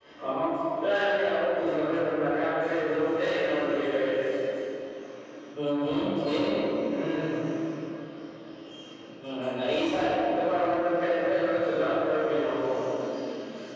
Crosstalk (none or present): none